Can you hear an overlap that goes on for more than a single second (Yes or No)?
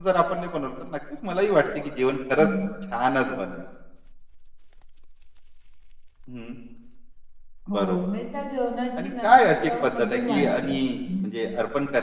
Yes